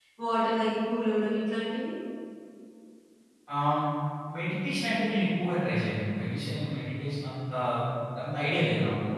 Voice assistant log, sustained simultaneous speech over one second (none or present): none